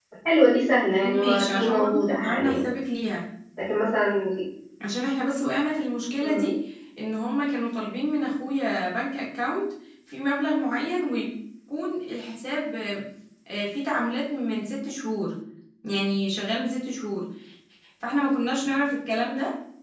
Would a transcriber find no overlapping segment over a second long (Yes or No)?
No